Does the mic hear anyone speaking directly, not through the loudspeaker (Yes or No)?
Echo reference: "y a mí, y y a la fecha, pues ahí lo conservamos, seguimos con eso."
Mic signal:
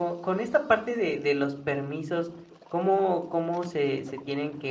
Yes